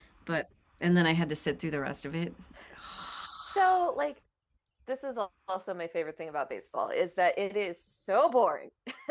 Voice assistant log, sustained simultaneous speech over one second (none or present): none